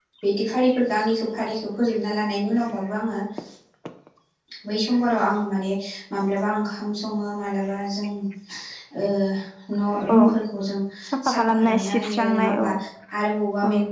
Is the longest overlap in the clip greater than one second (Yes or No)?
Yes